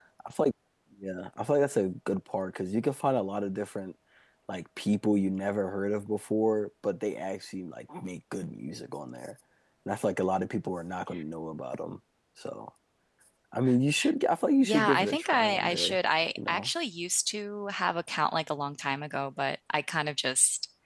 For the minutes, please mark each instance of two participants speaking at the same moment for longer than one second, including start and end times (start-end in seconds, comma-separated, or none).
14.6-16.0